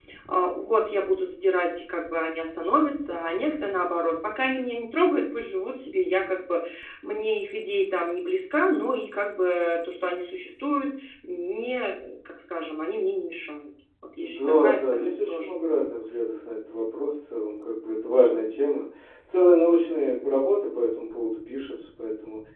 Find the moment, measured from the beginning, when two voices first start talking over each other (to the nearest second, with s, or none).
14 s